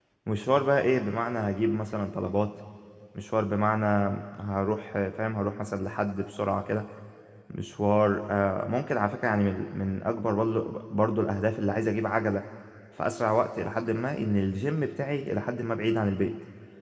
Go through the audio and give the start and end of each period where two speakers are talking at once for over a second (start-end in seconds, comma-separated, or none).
none